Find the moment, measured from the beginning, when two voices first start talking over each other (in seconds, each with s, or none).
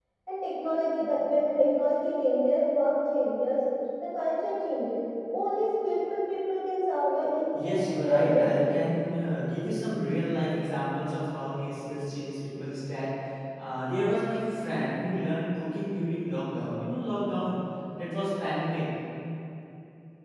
7.5 s